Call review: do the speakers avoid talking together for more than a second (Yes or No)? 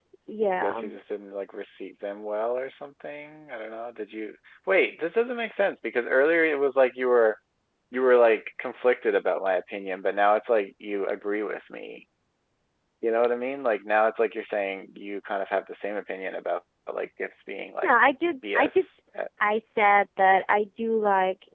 Yes